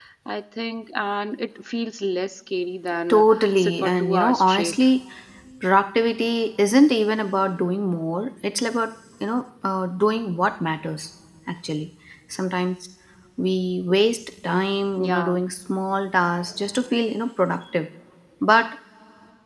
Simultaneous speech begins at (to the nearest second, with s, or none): 3 s